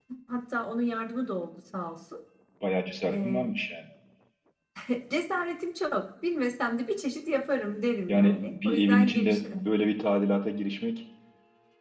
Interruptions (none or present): present